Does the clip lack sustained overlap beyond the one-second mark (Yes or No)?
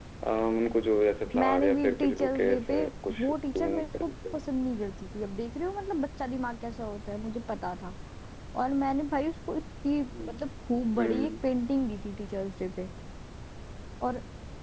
No